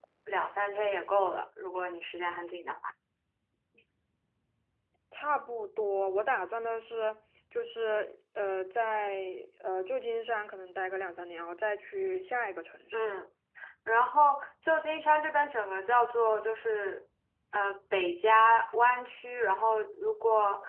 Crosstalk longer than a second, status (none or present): none